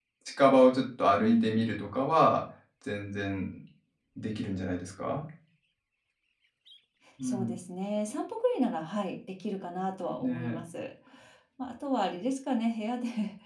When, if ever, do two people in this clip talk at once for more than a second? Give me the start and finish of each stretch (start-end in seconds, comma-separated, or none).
none